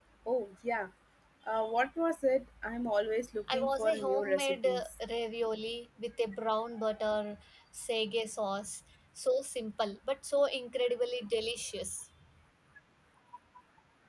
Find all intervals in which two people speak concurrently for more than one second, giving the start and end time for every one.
3.5-4.9

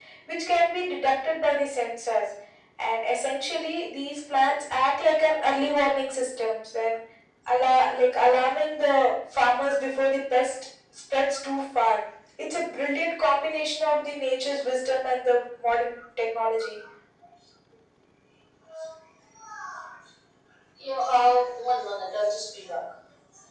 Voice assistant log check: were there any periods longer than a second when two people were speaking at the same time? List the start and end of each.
none

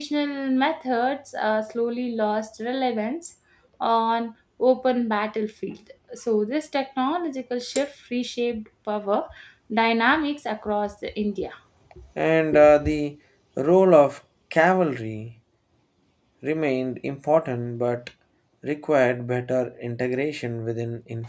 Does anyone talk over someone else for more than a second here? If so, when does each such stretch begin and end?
none

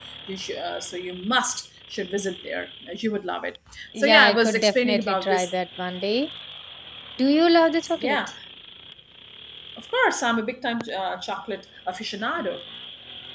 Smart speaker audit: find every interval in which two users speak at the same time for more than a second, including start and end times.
4.1-5.5

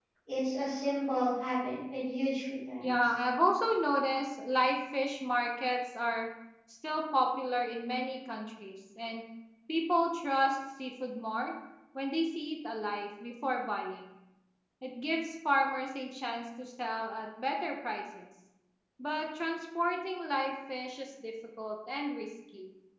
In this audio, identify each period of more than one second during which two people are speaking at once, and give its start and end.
none

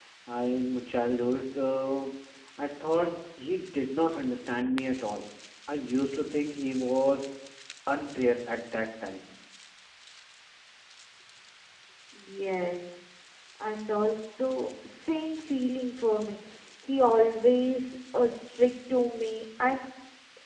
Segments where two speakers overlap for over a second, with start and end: none

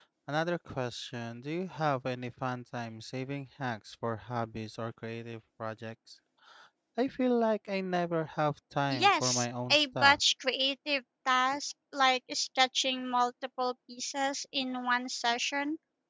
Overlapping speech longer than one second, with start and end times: 8.9-10.2

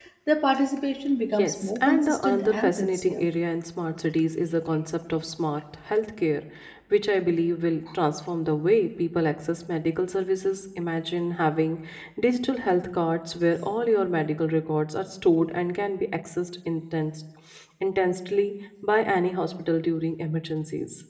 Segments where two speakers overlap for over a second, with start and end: 1.3-3.2

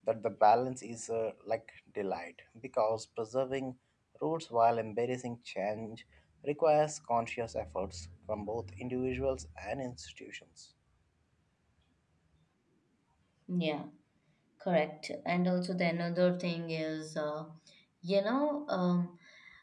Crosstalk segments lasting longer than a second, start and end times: none

